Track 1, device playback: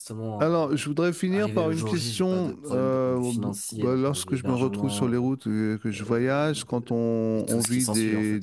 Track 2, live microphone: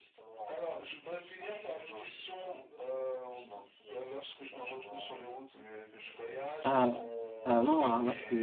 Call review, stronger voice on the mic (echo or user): user